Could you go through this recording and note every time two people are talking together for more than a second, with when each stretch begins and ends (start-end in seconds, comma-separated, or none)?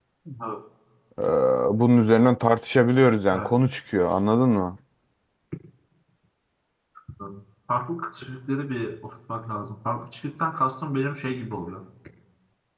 none